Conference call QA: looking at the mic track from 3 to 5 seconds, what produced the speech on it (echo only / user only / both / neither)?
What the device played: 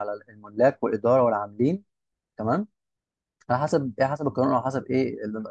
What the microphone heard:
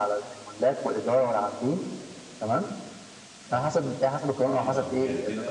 both